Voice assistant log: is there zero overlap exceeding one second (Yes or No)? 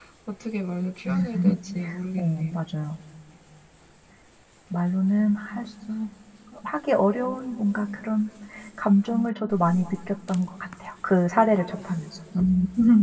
Yes